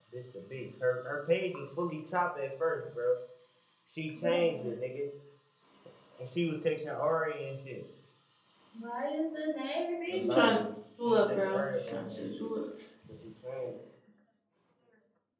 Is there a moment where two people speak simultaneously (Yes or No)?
Yes